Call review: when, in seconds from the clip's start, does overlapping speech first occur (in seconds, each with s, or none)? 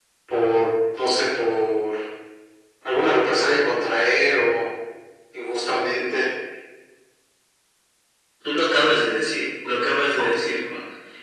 none